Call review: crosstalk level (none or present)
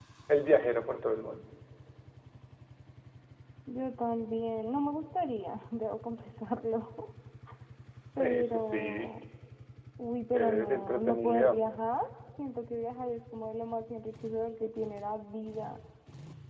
present